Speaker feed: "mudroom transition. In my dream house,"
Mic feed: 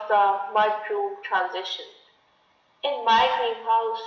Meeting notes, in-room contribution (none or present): none